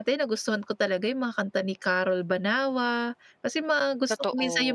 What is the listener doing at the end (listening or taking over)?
listening